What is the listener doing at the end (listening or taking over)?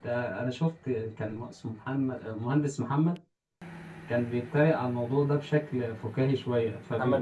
listening